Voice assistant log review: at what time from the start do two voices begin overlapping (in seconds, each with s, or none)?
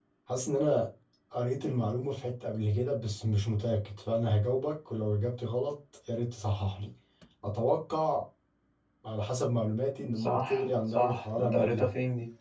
10.2 s